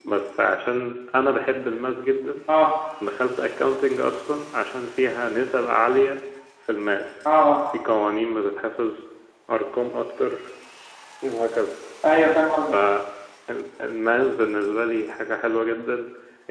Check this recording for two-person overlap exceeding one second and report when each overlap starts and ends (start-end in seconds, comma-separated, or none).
none